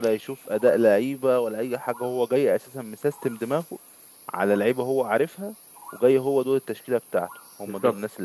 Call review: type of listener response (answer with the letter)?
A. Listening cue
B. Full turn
B